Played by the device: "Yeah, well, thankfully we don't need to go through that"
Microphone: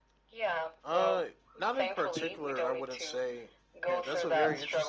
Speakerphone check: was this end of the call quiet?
No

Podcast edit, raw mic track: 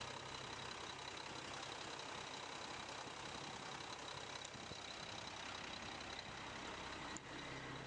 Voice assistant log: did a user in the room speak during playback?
No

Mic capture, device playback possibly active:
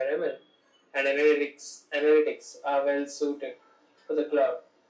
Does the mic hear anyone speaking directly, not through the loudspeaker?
No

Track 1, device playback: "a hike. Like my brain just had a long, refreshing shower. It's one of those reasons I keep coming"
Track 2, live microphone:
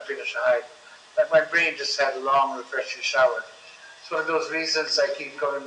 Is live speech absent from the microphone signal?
Yes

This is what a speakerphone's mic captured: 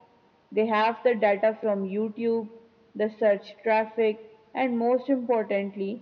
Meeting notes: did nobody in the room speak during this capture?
Yes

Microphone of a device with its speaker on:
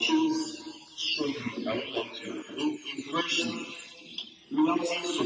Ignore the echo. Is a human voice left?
No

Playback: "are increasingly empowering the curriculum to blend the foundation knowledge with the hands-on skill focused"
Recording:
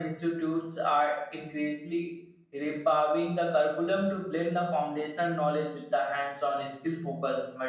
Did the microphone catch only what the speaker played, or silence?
Yes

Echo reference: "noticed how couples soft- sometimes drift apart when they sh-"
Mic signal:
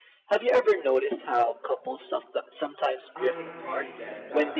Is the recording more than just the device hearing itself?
Yes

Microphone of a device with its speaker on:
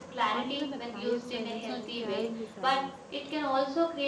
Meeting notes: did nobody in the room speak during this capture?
No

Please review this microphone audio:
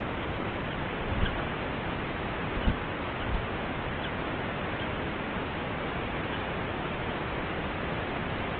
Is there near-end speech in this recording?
No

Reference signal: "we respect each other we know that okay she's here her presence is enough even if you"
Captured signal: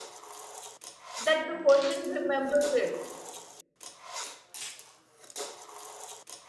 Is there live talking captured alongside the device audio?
Yes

